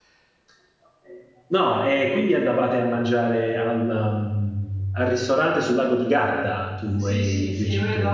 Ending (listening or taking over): taking over